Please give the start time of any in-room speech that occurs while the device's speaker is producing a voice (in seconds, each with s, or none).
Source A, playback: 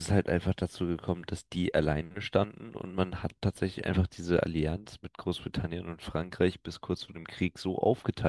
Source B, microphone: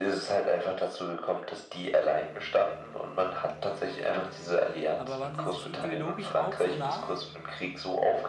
5.0 s